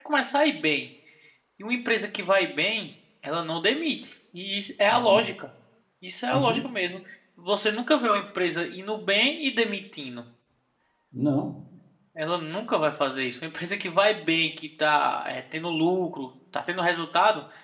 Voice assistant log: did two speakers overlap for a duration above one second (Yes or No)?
No